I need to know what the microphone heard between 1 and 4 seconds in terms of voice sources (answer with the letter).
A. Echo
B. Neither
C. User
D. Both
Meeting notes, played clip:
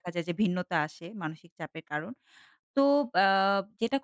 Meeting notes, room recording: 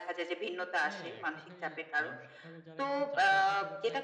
D